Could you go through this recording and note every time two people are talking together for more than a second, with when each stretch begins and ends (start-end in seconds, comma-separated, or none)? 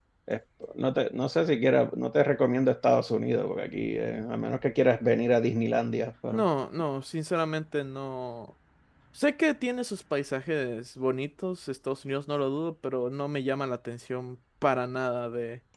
none